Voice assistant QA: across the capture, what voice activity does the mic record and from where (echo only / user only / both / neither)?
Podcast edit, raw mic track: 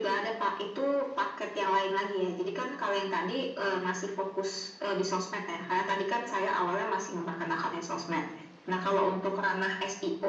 echo only